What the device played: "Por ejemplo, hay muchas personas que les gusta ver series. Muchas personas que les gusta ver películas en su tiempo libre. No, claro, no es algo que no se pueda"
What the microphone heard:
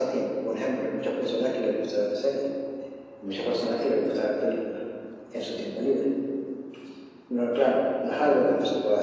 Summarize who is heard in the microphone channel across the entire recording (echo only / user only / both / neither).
echo only